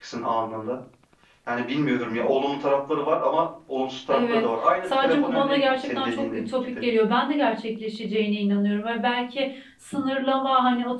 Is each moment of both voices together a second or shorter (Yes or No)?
No